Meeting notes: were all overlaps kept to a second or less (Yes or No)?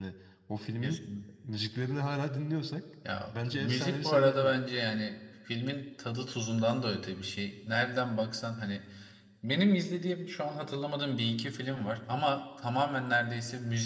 No